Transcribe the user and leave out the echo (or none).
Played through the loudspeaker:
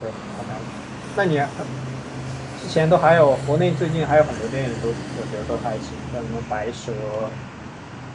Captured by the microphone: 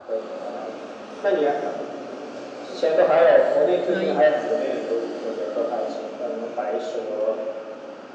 可以，